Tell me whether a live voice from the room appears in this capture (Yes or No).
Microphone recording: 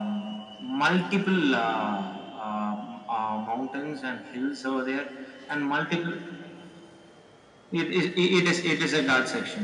No